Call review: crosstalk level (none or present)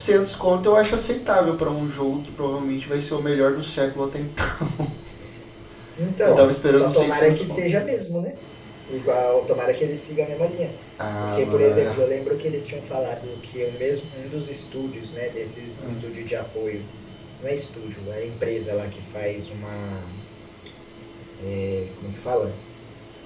present